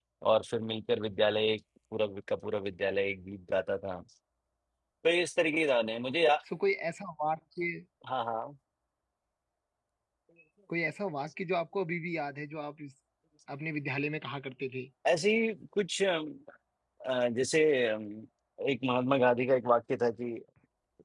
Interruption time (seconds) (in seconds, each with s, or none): none